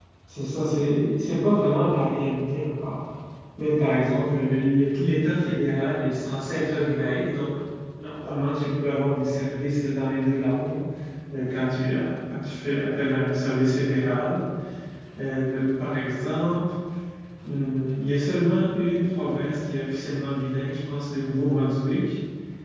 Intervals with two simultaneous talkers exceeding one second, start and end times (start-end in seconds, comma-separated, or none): none